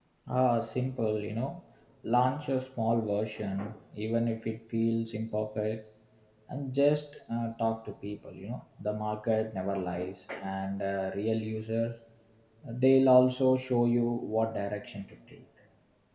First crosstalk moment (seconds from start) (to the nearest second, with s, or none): none